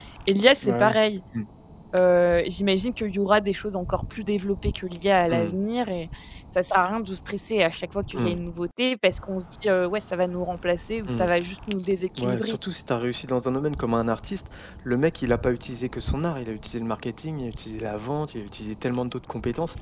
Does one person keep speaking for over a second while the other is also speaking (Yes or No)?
No